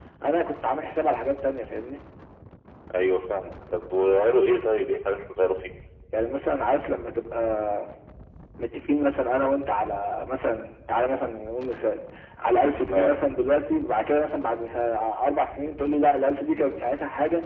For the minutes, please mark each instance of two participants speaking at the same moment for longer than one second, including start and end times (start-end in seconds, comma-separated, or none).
none